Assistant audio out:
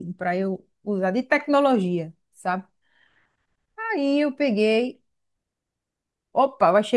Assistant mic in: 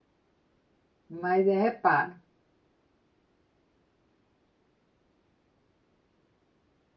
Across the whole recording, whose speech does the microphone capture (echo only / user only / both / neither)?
user only